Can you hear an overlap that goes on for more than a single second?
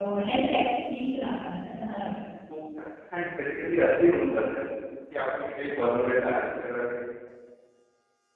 No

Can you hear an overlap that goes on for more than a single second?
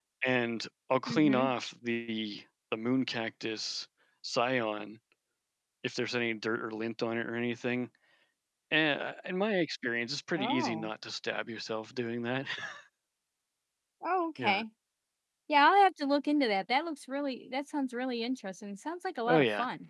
No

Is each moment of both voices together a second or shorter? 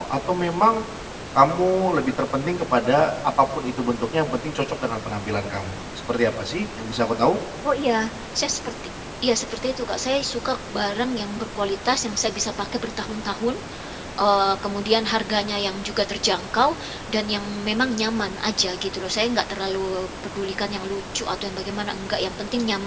Yes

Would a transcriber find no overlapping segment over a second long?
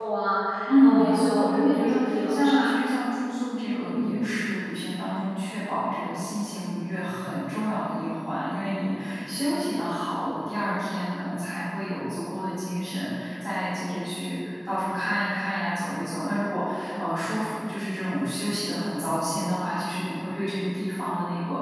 No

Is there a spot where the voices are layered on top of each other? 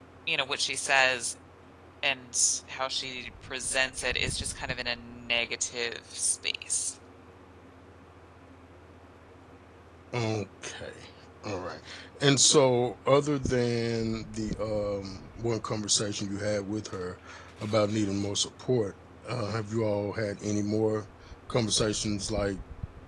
No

